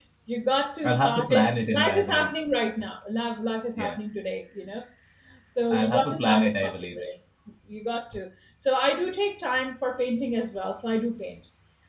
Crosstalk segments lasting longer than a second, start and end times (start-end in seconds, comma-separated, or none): 0.8-2.3, 5.7-7.0